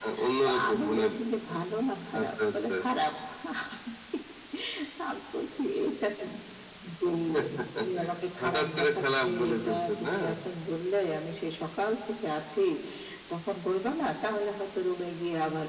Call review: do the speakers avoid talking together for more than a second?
No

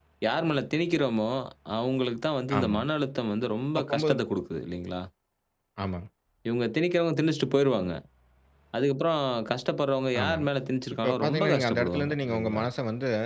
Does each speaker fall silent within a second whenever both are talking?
No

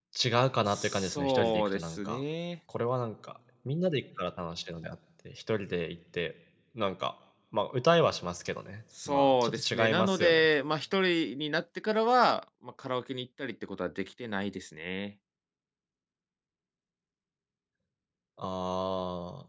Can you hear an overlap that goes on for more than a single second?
Yes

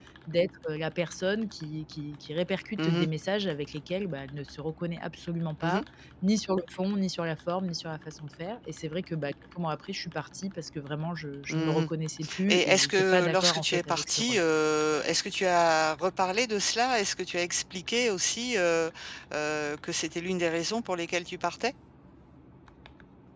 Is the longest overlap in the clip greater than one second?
Yes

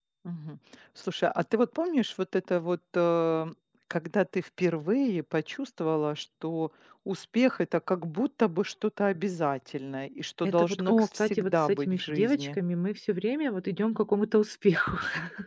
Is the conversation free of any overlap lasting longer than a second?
No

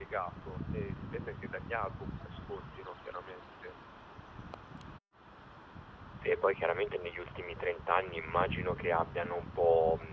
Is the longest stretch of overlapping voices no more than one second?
Yes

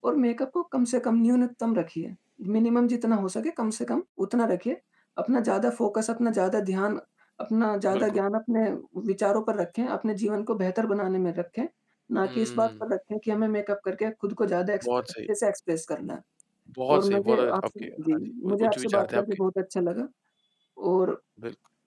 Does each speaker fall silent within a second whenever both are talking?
No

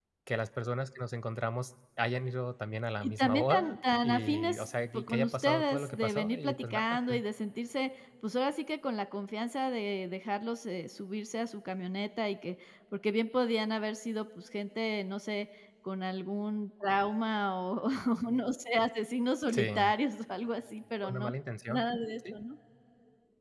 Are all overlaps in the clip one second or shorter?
No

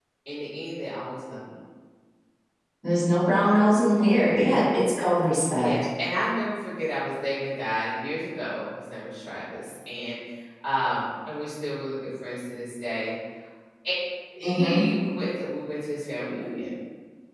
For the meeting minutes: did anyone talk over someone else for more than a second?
No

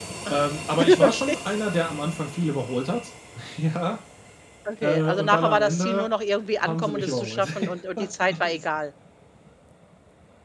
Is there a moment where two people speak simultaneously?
Yes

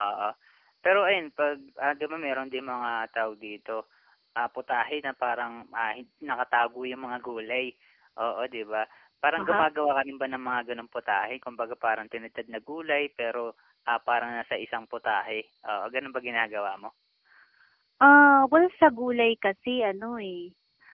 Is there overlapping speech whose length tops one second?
No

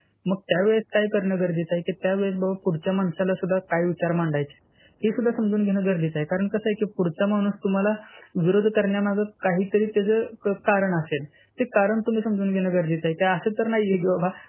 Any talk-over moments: No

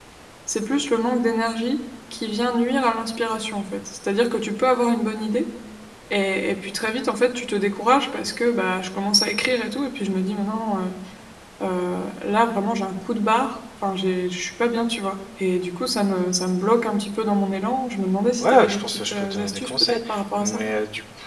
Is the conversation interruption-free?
No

